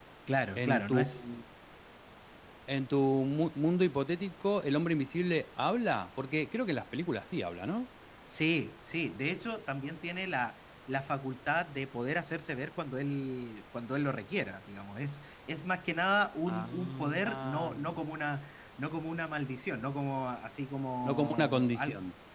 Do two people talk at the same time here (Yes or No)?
Yes